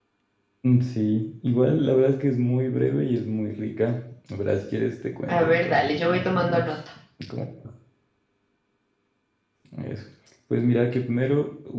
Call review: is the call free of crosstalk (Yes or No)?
No